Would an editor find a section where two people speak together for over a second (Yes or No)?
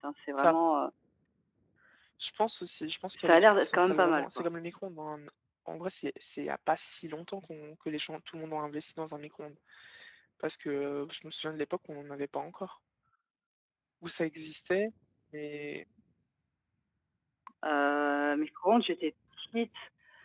Yes